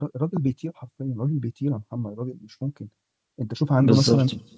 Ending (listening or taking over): listening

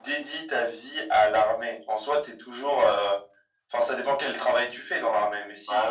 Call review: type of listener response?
taking over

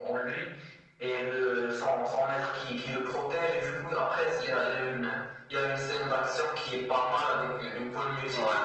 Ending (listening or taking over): listening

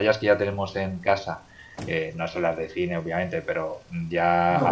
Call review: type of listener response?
listening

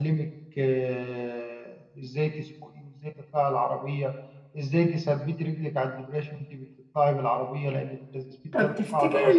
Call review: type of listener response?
taking over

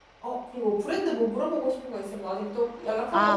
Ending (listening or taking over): taking over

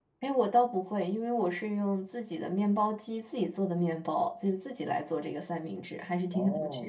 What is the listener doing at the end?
taking over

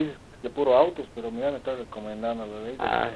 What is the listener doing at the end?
taking over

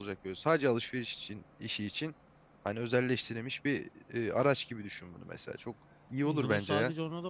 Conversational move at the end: taking over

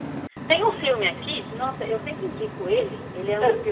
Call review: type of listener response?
listening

